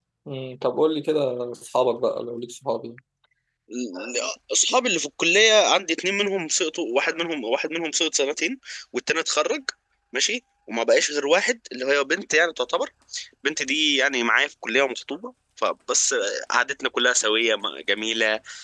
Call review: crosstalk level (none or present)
none